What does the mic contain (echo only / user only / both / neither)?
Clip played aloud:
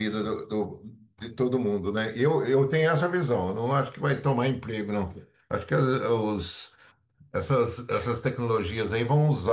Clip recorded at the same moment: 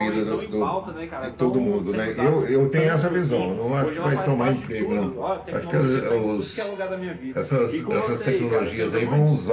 both